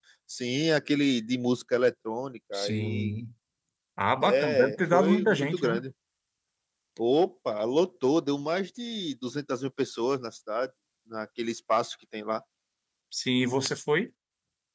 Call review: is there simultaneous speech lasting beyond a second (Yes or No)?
Yes